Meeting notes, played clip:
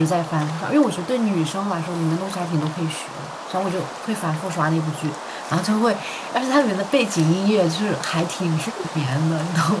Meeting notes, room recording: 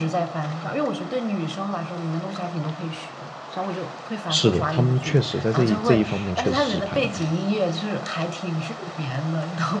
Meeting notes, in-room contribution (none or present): present